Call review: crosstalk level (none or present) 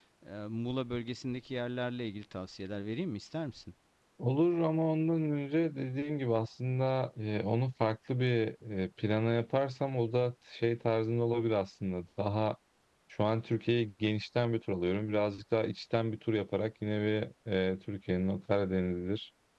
none